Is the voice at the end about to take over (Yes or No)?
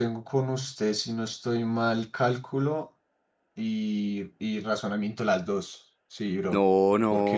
Yes